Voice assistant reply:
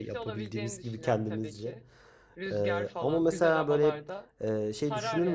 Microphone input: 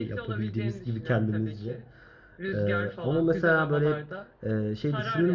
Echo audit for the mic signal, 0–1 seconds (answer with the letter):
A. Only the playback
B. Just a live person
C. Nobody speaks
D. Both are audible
A